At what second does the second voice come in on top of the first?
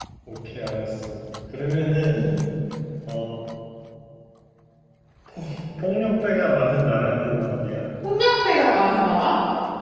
none

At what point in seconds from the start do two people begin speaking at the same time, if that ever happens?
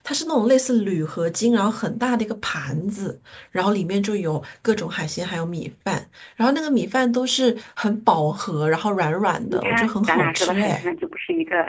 9.5 s

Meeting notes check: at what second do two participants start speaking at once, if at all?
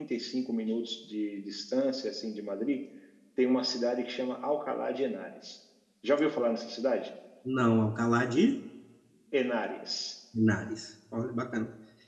none

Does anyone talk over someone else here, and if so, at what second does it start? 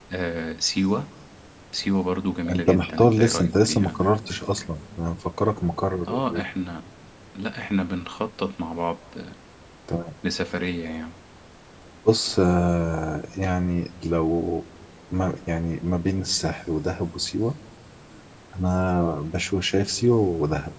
2.5 s

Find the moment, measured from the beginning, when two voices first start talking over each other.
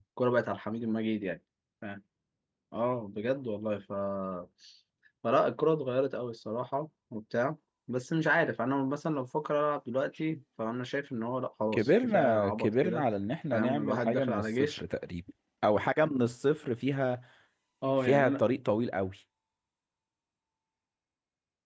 11.7 s

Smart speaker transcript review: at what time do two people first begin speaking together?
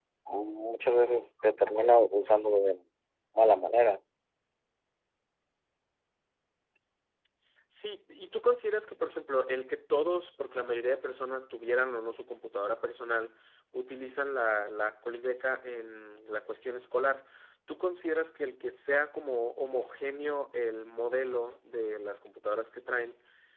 none

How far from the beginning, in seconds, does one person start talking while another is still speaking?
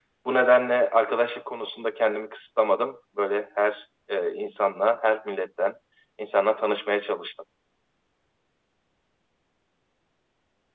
none

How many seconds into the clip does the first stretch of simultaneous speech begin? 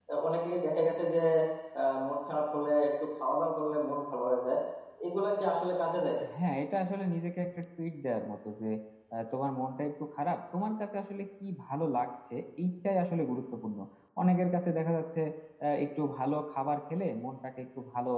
none

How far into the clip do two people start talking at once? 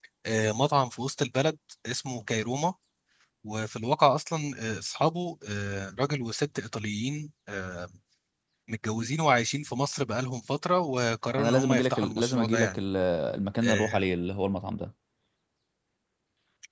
11.4 s

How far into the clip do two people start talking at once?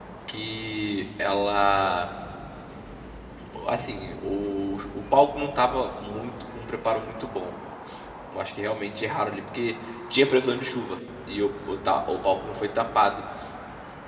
none

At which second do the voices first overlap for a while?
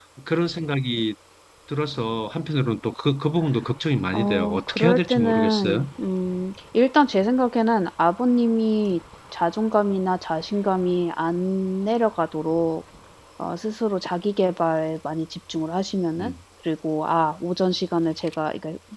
4.1 s

